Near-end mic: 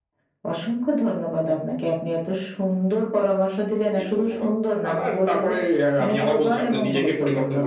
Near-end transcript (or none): none